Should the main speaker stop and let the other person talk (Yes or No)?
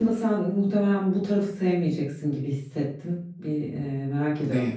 No